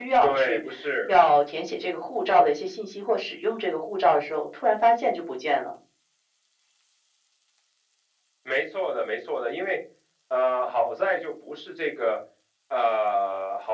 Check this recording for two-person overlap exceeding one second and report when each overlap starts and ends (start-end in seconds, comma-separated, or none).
none